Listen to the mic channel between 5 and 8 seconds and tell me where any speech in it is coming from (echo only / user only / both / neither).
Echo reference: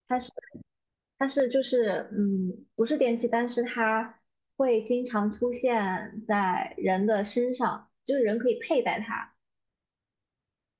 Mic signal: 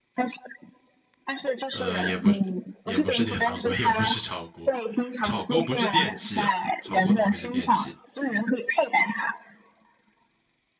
both